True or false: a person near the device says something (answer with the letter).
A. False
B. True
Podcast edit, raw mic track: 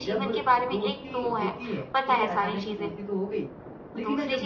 B